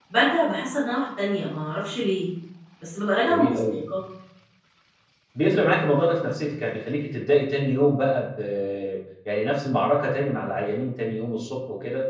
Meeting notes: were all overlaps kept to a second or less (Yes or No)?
Yes